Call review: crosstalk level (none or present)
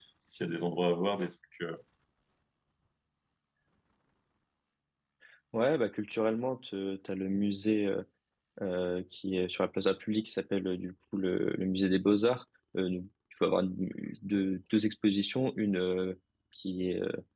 none